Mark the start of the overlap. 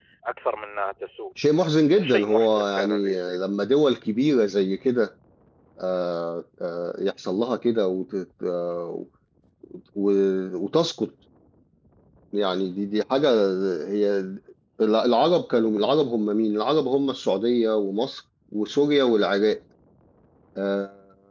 1.9 s

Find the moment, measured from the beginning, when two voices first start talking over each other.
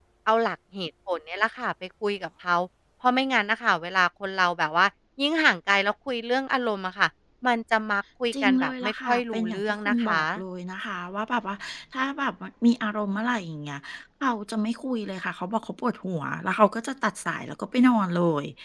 8.3 s

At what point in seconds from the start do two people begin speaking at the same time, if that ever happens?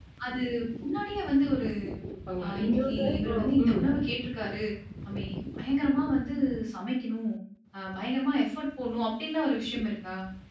2.4 s

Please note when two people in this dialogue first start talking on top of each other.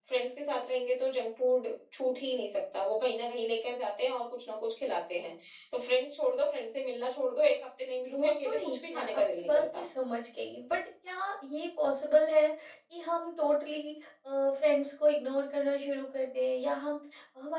8.0 s

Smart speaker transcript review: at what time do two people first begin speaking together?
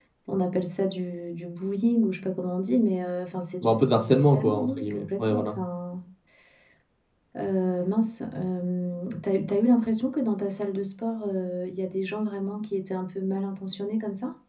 3.6 s

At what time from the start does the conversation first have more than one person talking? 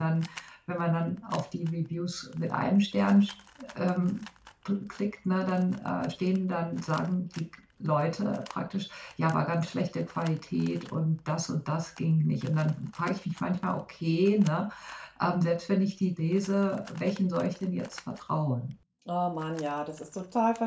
none

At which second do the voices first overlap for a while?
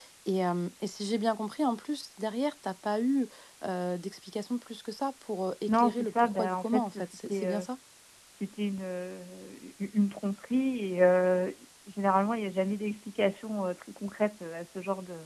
5.7 s

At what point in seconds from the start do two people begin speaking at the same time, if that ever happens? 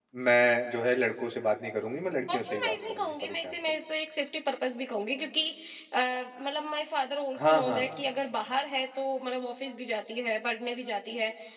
2.3 s

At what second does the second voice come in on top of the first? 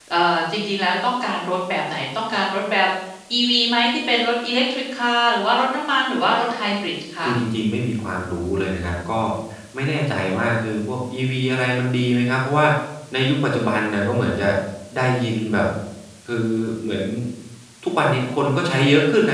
none

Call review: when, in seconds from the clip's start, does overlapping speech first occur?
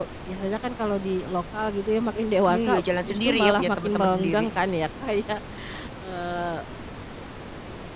2.5 s

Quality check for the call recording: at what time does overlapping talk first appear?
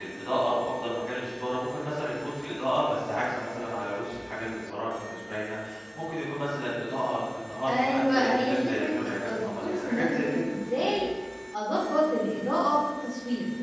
7.7 s

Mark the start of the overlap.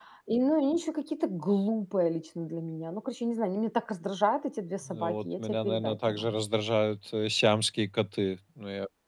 4.8 s

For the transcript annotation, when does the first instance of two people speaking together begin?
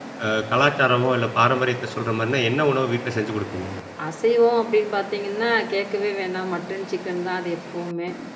none

